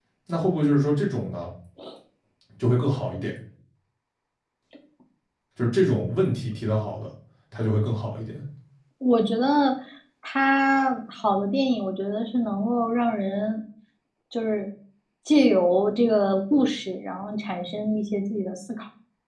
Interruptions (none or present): none